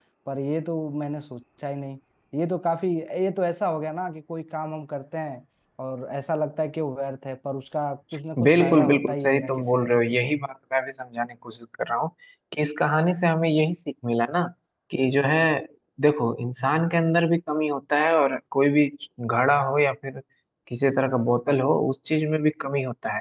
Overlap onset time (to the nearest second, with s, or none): 8 s